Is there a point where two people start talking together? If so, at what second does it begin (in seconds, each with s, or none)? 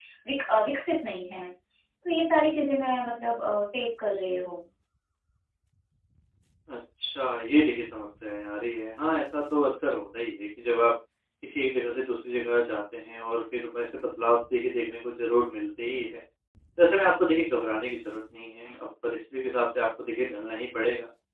none